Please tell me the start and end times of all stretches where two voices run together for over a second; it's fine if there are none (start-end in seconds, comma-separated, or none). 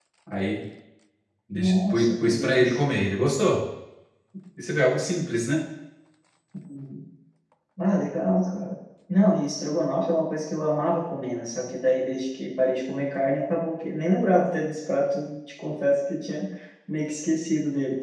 1.5-2.8